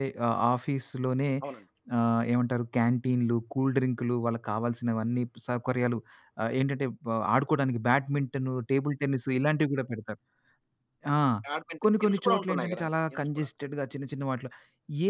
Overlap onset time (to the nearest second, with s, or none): 12 s